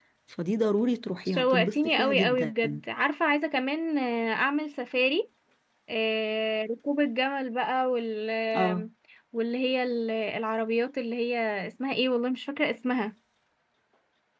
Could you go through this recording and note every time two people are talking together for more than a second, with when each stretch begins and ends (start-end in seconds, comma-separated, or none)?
1.3-2.5